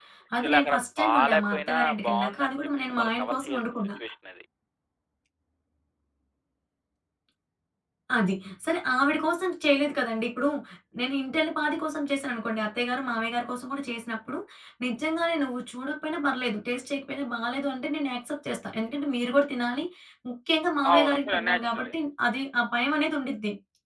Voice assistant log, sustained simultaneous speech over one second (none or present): present